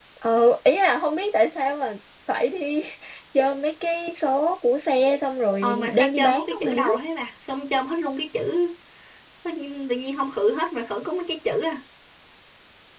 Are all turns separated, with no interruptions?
No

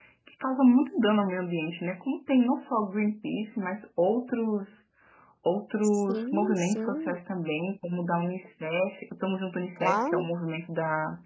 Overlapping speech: Yes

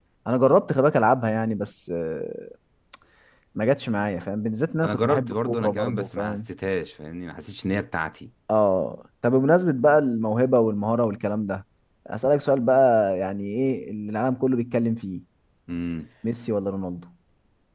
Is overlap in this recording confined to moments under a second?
No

